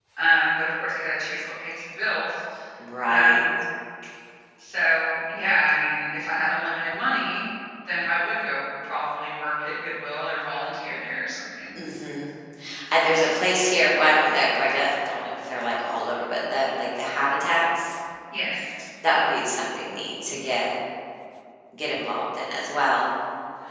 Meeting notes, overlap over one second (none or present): none